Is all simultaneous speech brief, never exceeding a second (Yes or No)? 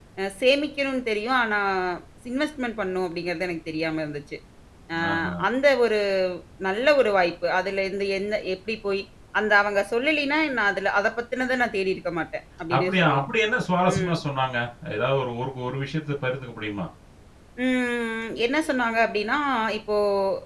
Yes